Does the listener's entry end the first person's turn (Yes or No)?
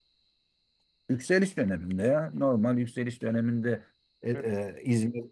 No